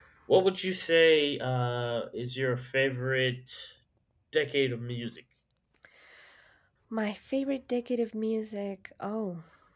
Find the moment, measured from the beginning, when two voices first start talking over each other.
none

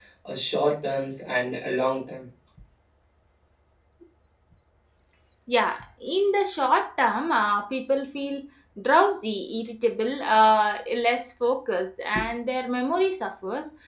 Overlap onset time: none

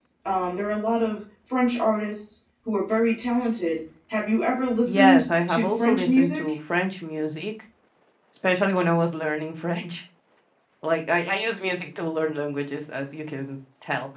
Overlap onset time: 4.8 s

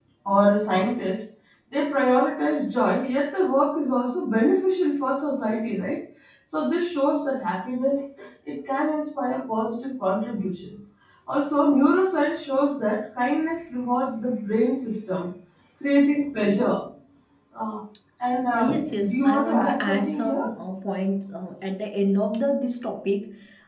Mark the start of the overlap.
18.5 s

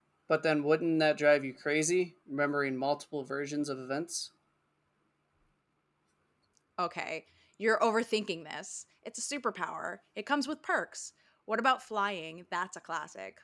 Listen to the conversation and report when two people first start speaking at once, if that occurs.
none

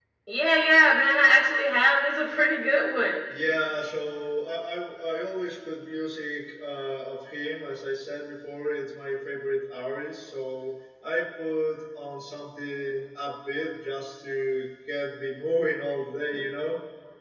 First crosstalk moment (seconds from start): none

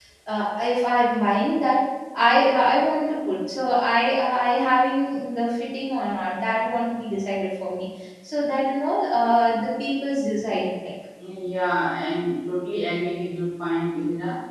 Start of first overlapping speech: none

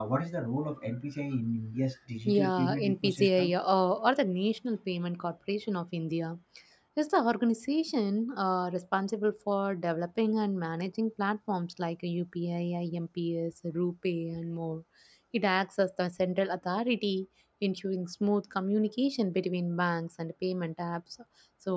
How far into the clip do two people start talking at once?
2.3 s

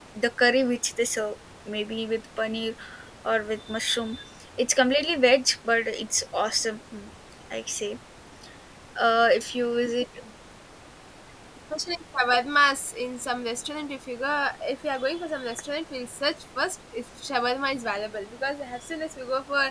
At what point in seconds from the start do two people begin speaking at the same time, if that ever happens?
none

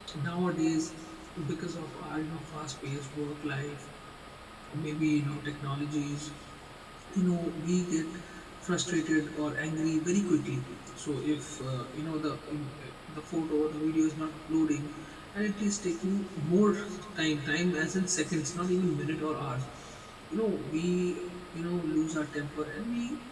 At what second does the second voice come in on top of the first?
none

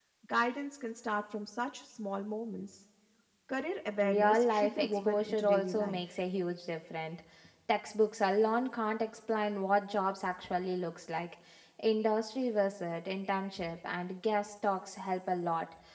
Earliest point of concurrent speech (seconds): 4.0 s

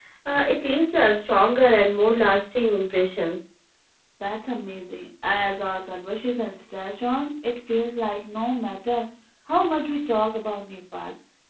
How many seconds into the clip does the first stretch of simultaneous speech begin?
none

